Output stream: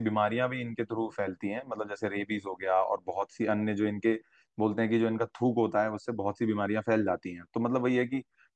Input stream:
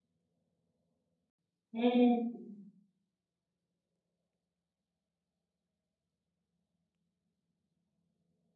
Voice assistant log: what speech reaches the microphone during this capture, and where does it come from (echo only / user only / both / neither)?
user only